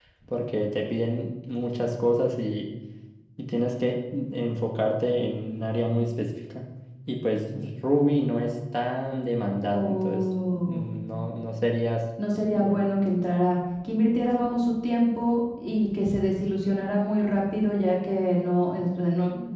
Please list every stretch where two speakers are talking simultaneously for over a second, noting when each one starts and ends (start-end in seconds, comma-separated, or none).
9.7-10.9